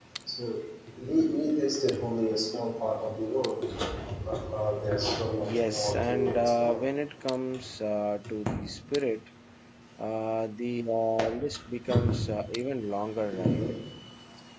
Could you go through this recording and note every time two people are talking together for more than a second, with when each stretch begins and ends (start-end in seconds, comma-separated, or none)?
5.4-6.8